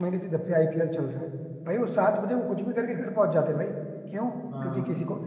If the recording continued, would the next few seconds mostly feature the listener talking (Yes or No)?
No